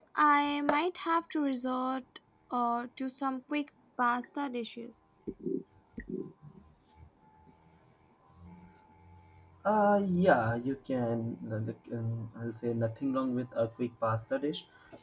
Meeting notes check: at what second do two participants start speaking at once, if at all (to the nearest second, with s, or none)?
none